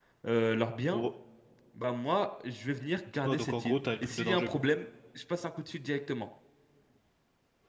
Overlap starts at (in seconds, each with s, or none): 3.2 s